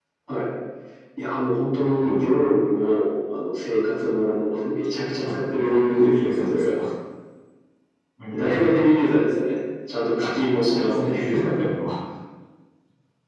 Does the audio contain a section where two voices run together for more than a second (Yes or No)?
Yes